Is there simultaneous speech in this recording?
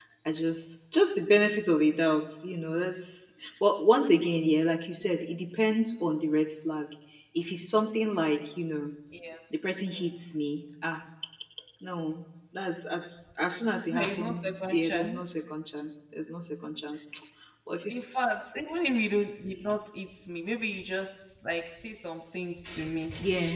Yes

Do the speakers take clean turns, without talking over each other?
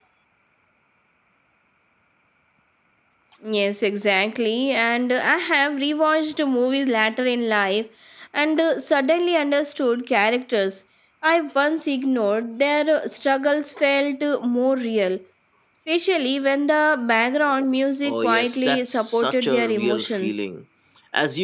No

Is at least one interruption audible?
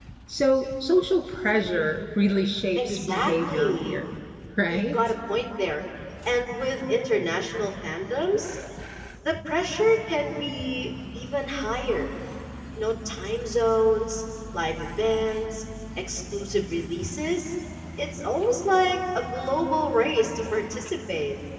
Yes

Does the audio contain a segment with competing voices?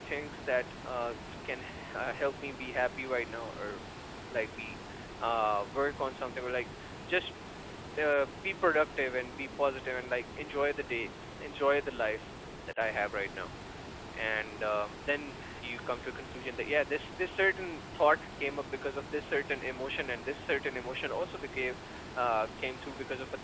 No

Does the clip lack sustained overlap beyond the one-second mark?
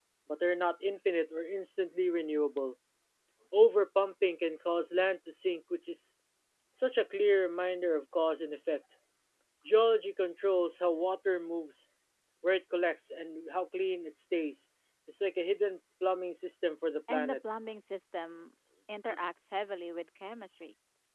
Yes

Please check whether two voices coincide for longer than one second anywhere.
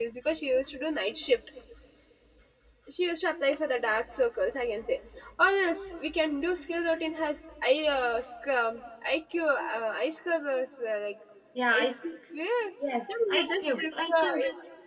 Yes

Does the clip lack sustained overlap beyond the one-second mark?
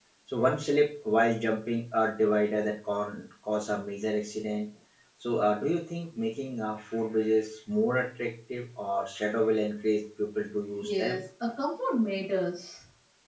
Yes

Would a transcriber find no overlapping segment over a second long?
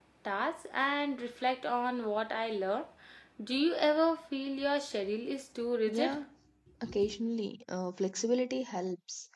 Yes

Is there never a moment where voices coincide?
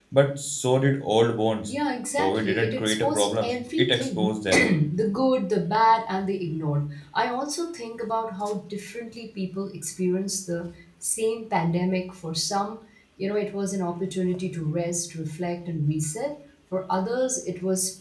No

